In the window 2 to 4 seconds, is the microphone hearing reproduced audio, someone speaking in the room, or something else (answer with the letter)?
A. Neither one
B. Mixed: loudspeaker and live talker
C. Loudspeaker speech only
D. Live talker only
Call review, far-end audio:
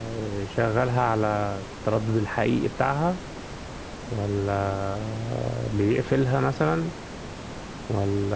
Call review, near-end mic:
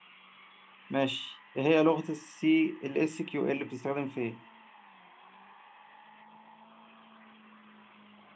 D